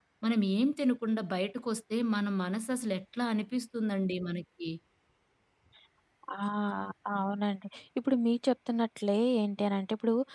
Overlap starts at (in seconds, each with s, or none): none